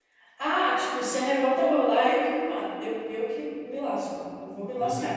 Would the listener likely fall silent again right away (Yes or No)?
No